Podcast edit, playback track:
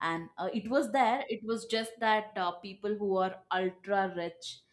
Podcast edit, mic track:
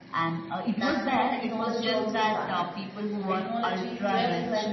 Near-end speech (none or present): present